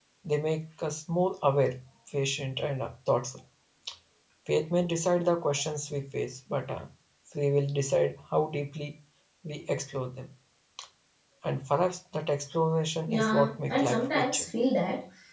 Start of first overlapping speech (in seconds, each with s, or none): 13.1 s